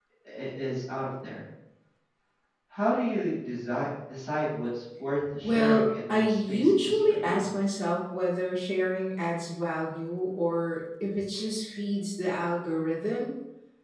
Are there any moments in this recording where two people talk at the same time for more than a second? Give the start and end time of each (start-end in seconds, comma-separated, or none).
5.4-7.5